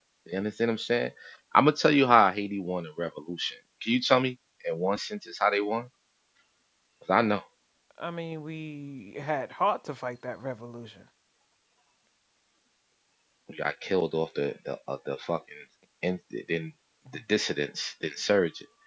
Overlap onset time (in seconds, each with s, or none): none